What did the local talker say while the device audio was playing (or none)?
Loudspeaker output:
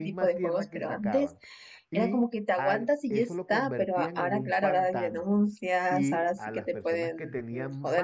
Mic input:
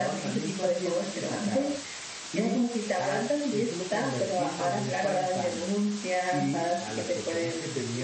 none